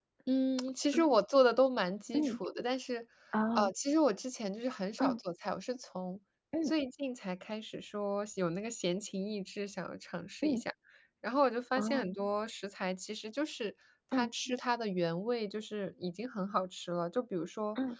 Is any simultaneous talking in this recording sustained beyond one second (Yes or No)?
No